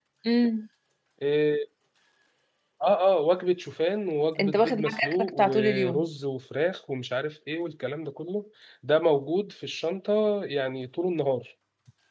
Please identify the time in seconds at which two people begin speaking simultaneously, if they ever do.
4.4 s

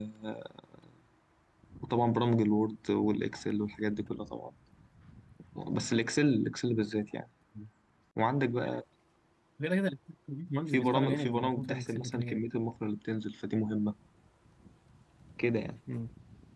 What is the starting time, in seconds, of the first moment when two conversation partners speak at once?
10.7 s

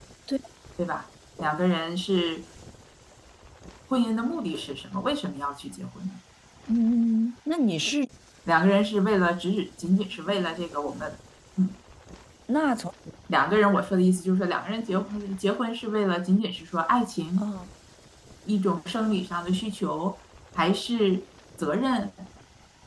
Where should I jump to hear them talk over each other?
none

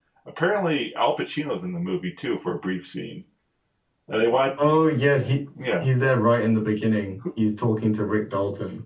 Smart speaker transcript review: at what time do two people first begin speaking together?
none

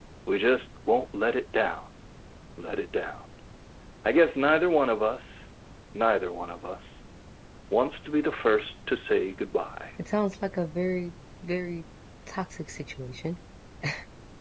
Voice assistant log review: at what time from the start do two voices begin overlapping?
none

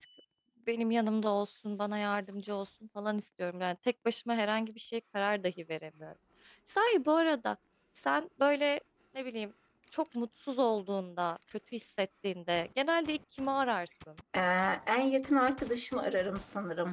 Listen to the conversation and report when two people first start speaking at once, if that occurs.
none

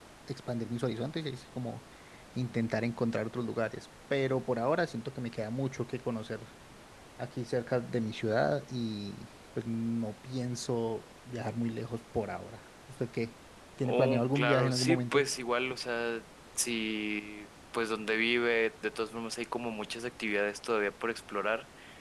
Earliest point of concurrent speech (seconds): 13.8 s

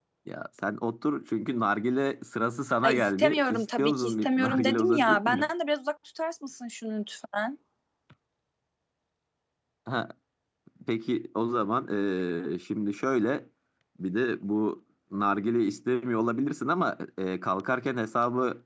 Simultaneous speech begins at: 2.8 s

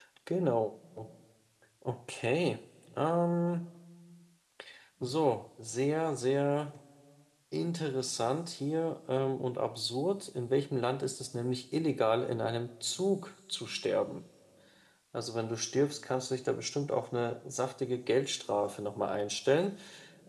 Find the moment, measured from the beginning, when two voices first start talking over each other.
none

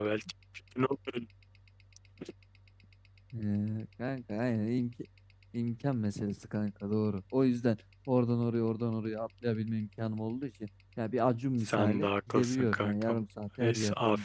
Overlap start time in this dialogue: 11.6 s

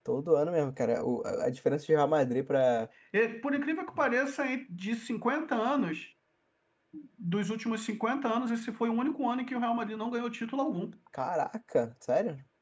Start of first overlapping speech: none

